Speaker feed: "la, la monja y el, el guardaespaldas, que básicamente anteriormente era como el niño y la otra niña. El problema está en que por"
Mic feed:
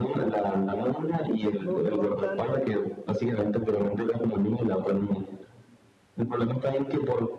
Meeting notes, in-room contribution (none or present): present